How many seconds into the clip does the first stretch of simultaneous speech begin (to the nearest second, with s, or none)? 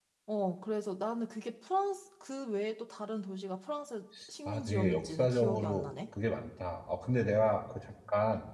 4 s